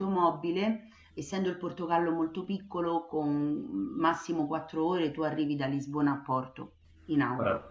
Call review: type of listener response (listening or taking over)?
taking over